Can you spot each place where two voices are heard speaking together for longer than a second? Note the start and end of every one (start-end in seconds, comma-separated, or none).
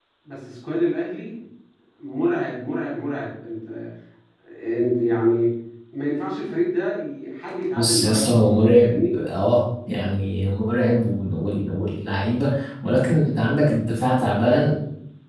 7.8-9.2